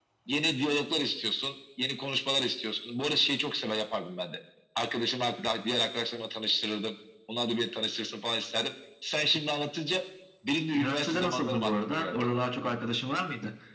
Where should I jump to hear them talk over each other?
10.7 s

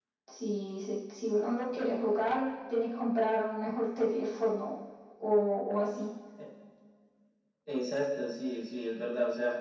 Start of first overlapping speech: none

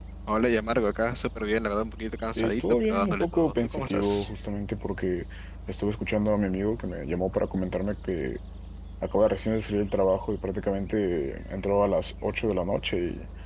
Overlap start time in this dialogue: 2.4 s

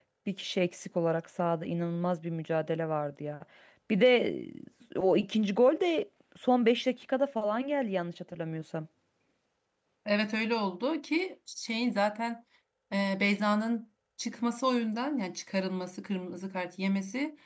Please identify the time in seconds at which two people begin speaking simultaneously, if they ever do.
none

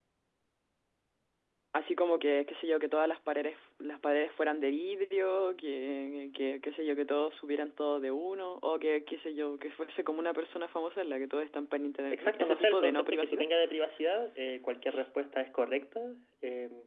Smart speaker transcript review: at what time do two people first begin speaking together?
12.1 s

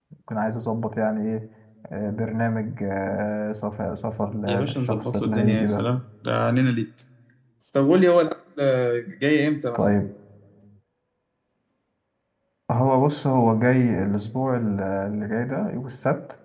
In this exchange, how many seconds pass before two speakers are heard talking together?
4.5 s

